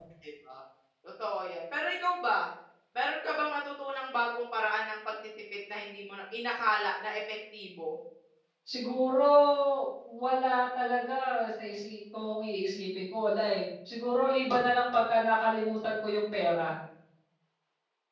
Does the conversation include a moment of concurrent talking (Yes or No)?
No